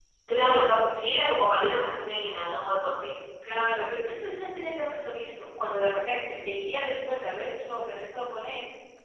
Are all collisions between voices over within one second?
Yes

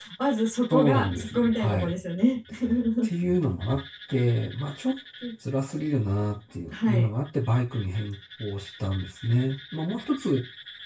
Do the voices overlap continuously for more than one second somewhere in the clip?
Yes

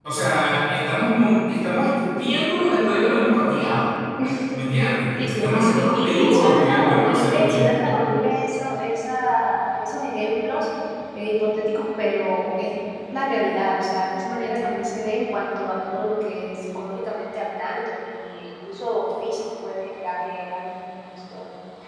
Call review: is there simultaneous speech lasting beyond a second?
Yes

